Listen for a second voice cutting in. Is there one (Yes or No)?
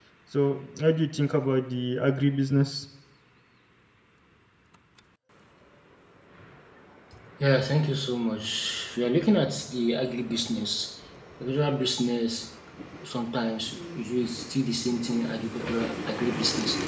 No